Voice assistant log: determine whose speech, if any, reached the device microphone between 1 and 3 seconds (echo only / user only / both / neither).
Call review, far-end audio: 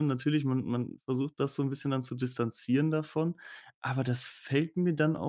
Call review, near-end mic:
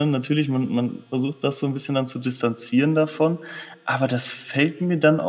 echo only